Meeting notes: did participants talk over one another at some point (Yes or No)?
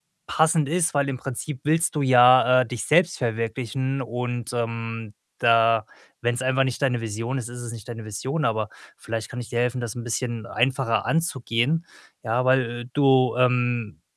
No